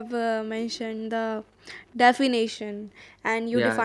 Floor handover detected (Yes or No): No